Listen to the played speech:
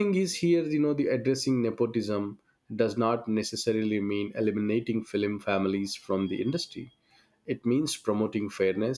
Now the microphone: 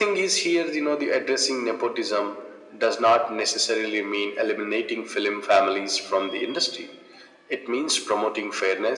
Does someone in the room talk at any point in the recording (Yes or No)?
No